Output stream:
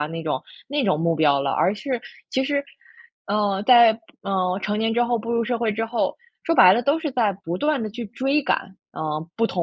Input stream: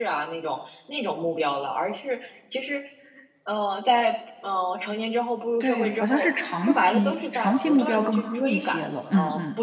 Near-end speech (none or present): present